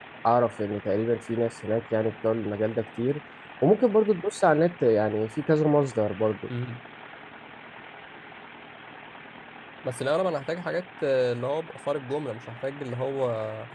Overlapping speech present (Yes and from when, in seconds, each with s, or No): No